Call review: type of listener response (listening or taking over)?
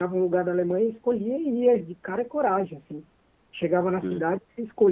listening